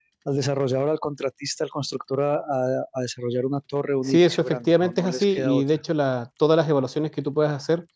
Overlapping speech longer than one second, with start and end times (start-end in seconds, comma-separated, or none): 4.0-5.6